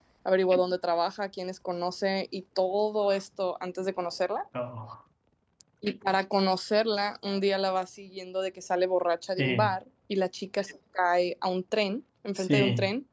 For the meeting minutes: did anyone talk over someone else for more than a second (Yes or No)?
No